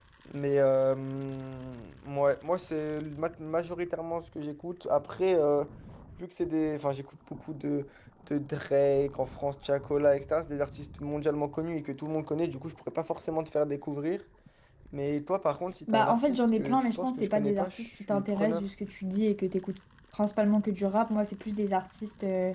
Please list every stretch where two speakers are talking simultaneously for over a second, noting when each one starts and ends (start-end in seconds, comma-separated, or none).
15.9-18.6